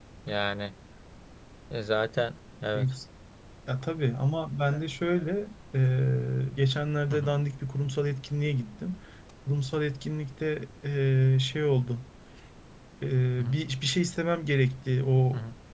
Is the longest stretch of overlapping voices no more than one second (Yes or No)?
Yes